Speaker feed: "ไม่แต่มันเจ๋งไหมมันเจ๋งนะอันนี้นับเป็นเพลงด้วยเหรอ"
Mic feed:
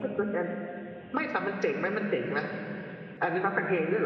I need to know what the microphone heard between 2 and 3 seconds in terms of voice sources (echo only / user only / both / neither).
echo only